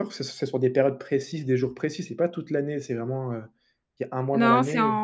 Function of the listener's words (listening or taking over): taking over